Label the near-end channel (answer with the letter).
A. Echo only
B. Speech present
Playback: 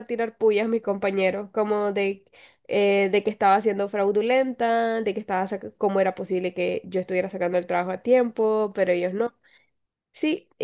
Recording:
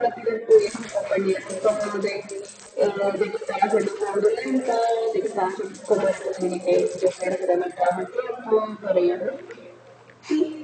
A